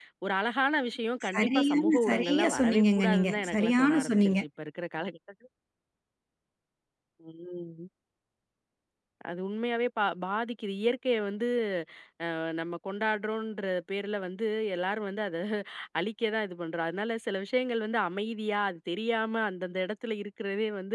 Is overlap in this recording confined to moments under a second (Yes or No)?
No